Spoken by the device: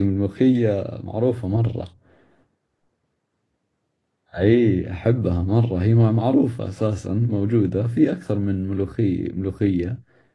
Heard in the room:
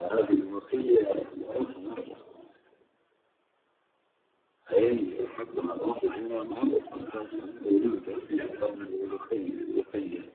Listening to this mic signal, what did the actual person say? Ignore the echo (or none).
none